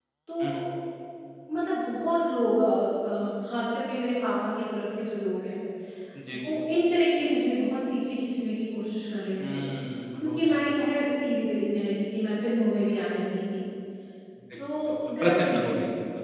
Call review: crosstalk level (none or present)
present